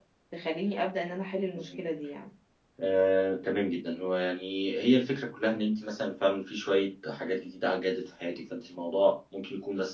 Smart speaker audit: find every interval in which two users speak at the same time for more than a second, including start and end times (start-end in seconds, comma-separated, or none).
none